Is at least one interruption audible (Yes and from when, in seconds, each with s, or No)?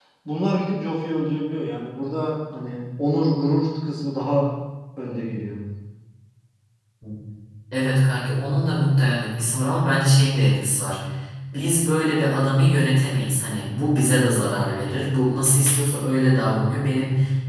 No